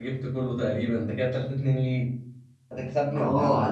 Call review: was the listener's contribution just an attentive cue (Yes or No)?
No